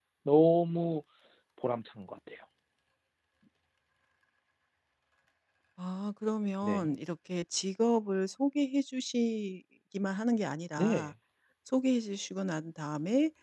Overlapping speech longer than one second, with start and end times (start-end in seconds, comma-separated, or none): none